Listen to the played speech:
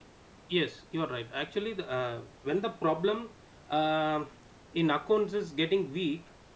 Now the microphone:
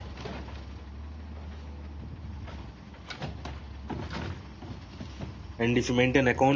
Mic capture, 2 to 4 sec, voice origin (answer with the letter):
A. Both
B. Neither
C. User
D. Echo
B